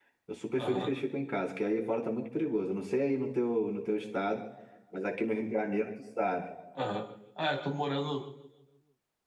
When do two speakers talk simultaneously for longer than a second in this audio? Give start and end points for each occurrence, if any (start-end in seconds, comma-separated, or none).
none